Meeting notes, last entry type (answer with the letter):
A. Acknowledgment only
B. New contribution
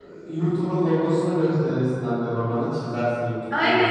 B